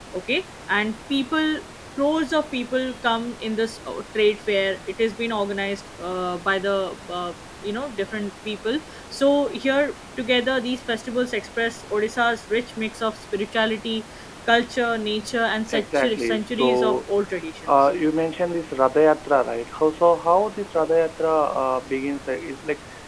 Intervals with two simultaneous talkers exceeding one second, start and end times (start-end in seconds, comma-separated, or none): 15.7-17.0